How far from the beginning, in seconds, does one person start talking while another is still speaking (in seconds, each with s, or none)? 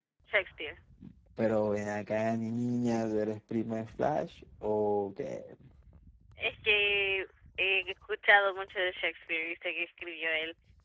none